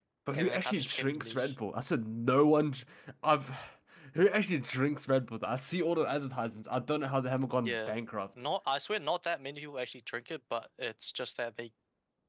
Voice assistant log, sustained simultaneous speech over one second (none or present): present